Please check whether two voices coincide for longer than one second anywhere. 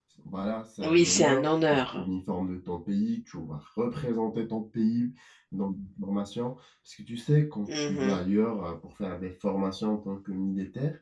Yes, from 0.8 s

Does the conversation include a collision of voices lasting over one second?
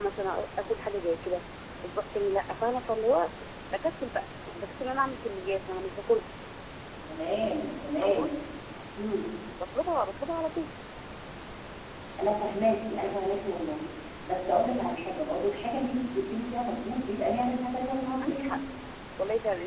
No

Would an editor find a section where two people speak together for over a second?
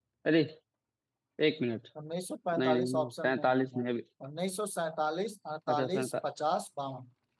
Yes, from 2.6 s

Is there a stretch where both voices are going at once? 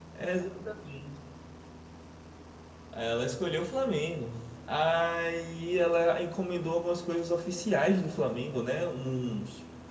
No

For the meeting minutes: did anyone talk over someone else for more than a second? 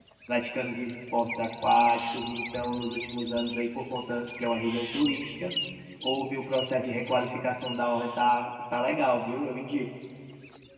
No

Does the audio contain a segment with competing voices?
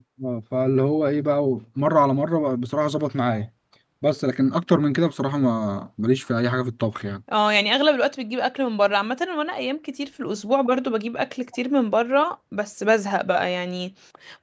No

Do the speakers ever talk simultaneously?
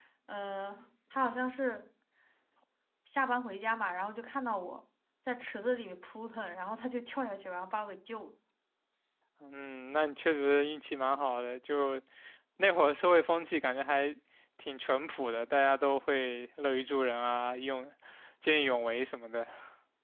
No

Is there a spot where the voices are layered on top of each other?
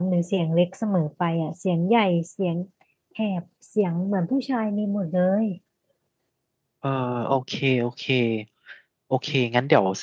No

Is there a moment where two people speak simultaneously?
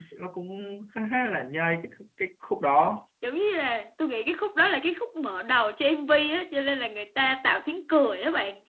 No

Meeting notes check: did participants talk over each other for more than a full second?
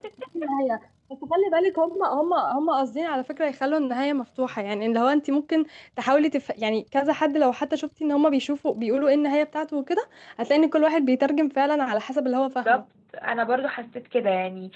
No

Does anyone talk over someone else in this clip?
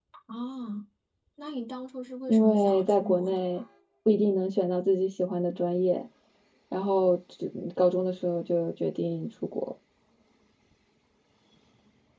Yes, from 2.3 s

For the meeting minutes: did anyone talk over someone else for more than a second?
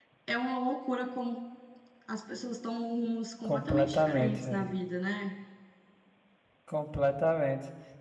Yes, from 3.4 s

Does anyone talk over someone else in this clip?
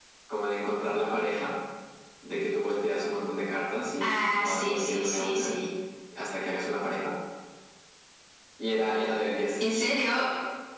Yes, from 4.0 s

